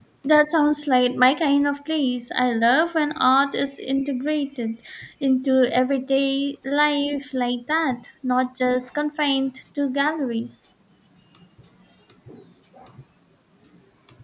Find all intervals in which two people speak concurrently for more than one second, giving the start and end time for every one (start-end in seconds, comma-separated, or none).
none